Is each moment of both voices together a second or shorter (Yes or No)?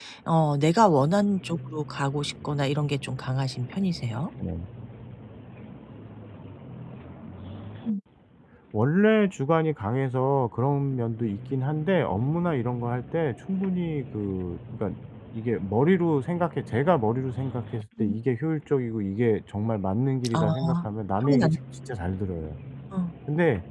Yes